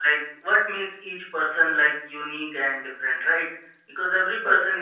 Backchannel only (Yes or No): Yes